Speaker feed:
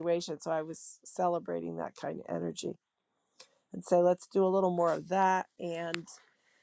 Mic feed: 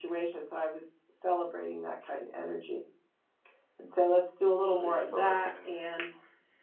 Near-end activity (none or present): present